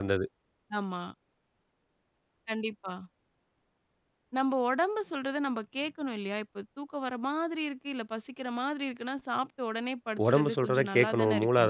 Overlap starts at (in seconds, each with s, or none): 10.2 s